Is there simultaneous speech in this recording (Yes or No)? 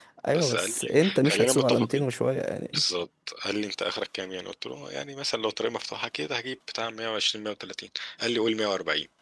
Yes